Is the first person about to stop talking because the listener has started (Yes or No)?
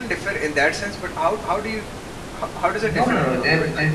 Yes